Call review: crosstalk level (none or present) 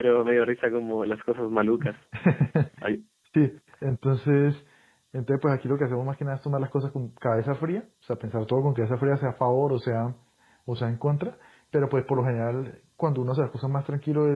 none